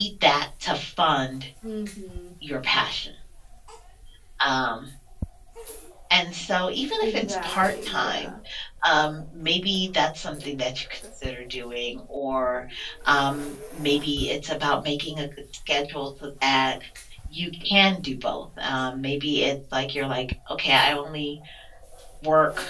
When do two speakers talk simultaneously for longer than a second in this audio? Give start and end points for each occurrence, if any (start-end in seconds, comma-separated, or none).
7.0-8.3